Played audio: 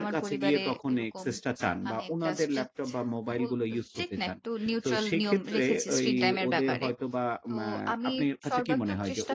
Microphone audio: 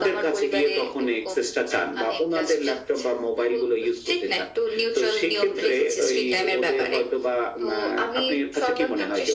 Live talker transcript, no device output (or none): none